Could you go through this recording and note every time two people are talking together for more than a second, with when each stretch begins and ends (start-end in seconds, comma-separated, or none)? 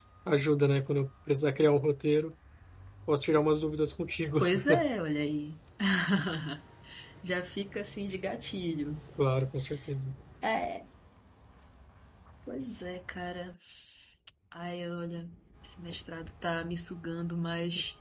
none